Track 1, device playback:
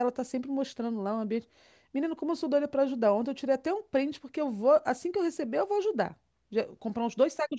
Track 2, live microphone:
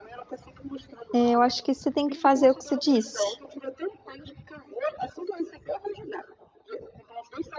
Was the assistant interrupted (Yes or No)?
Yes